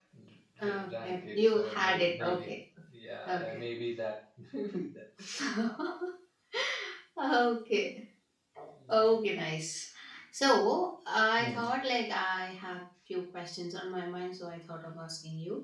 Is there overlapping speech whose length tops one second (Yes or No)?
Yes